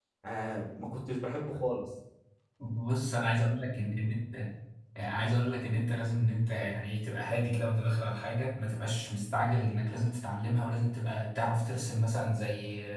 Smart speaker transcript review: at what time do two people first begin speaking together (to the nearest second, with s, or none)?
none